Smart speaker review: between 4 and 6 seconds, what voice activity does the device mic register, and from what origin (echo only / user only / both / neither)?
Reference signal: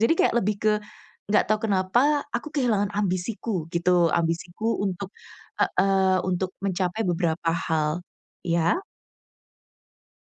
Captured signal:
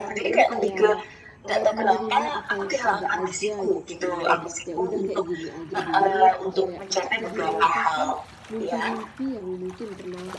both